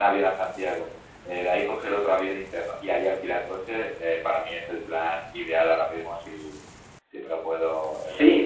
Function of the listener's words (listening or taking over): taking over